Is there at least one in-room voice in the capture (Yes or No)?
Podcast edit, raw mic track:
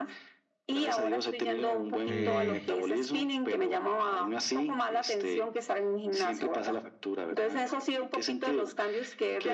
Yes